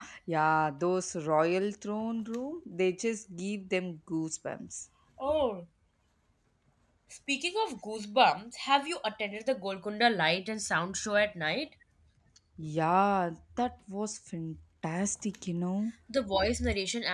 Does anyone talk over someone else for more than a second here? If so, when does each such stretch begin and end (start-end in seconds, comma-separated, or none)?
none